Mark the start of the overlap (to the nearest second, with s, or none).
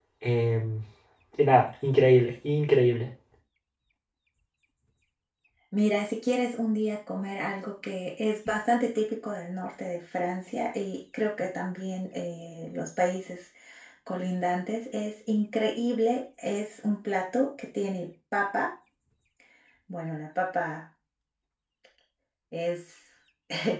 none